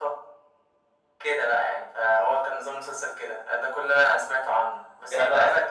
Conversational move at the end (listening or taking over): listening